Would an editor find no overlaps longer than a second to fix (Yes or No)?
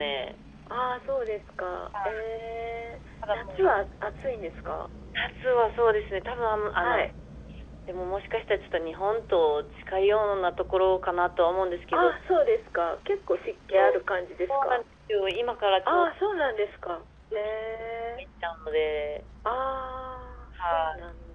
Yes